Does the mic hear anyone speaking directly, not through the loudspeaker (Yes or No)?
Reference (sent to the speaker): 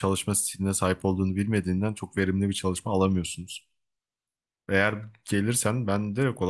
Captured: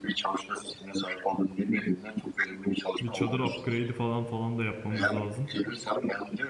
Yes